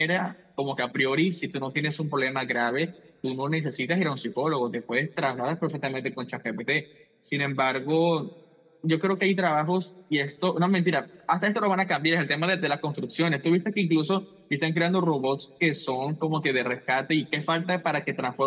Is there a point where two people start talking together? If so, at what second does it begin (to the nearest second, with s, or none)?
none